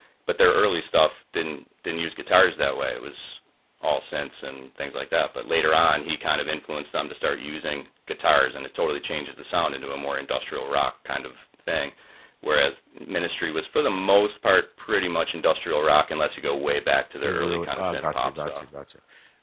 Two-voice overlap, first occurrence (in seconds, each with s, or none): 17.2 s